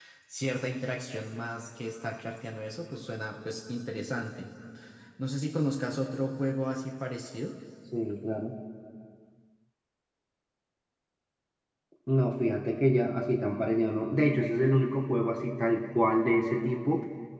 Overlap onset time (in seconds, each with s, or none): none